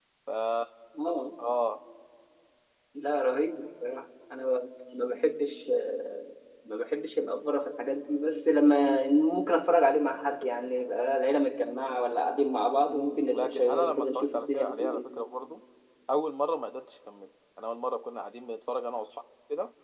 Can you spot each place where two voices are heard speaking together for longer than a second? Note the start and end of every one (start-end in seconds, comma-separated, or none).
12.9-15.1